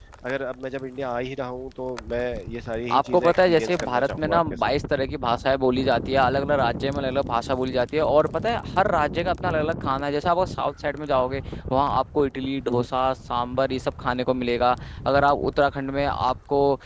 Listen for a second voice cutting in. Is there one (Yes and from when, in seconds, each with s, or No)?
Yes, from 2.9 s